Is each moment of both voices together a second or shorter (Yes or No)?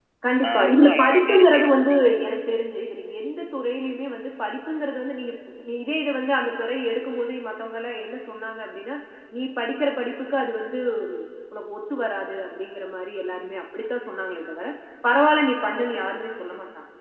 No